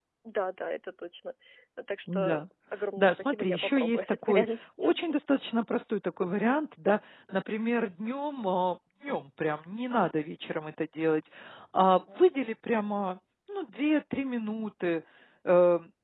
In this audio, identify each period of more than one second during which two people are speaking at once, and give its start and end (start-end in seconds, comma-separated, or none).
3.0-4.5